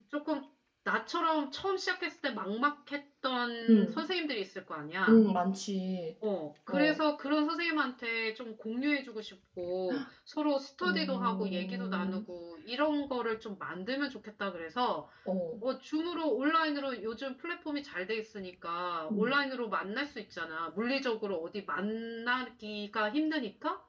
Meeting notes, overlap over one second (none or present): present